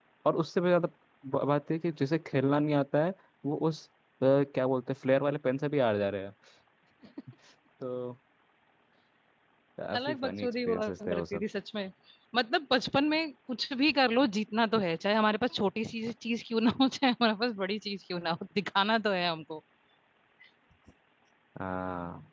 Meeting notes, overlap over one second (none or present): present